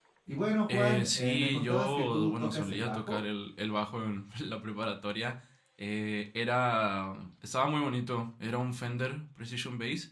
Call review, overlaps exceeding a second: present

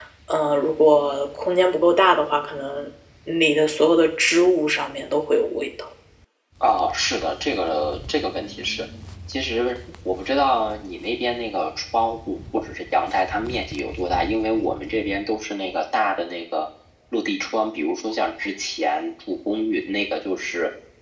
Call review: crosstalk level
none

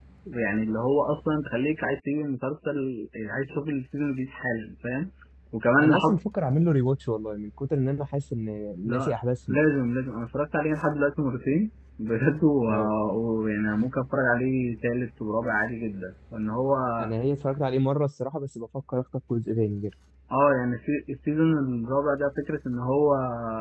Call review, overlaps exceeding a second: none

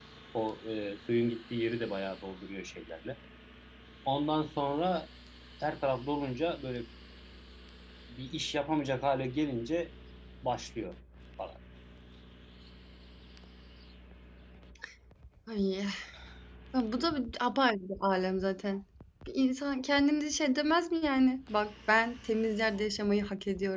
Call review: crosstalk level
none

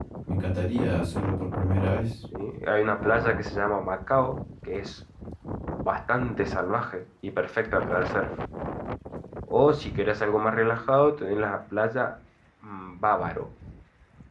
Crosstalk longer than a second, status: none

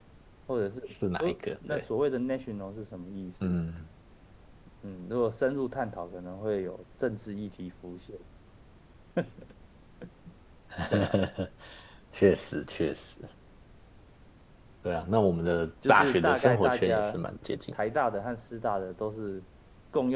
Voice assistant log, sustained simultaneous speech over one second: present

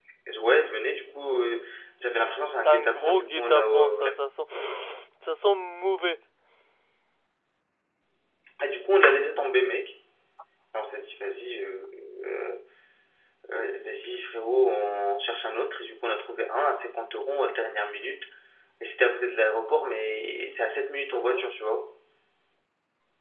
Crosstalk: present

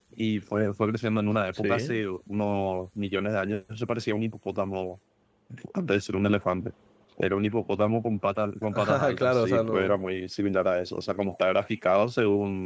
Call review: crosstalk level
present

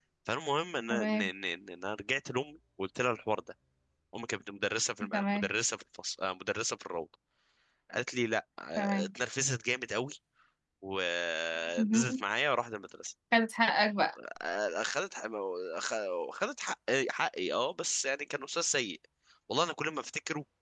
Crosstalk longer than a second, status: none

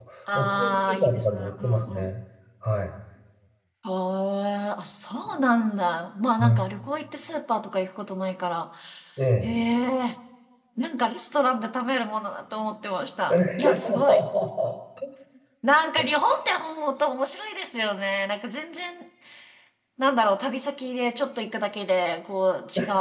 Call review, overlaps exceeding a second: present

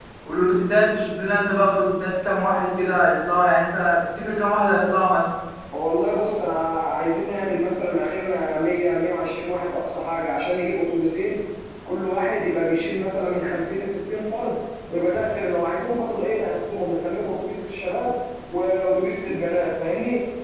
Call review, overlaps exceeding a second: none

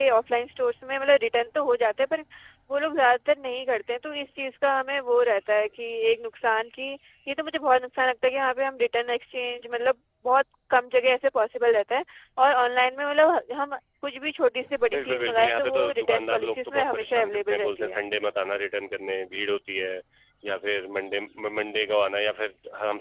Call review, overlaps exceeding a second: present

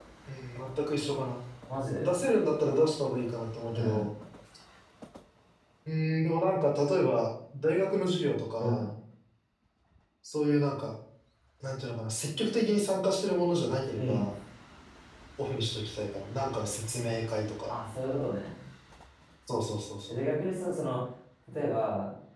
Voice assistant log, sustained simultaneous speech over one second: none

